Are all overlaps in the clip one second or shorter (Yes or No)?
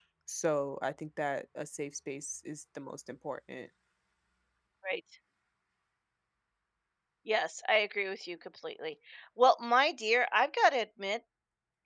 Yes